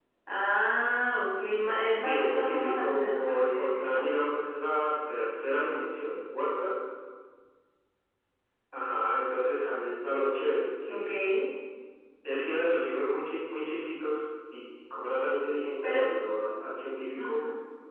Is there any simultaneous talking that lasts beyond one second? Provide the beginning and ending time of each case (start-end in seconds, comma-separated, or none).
1.8-4.0